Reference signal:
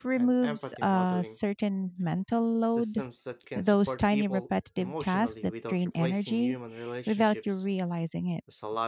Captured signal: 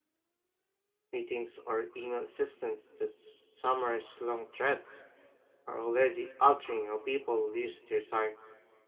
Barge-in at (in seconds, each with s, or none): 1.1 s